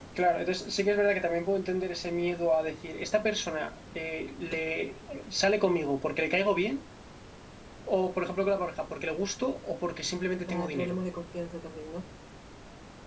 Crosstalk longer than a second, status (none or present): none